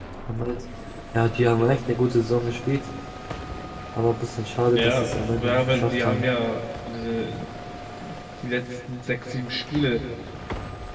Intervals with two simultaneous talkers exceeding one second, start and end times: 4.7-6.2

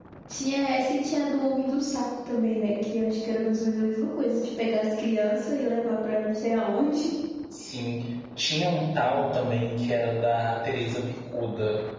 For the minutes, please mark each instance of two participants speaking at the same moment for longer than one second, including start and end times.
none

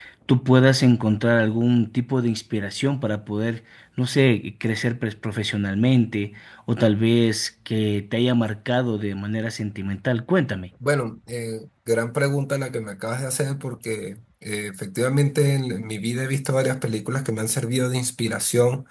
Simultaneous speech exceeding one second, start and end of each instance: none

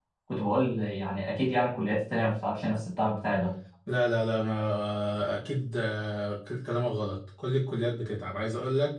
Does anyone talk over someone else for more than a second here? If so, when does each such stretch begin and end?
none

